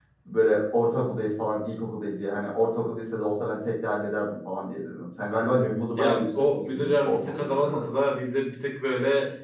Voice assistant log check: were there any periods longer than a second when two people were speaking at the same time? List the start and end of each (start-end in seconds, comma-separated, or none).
6.0-7.8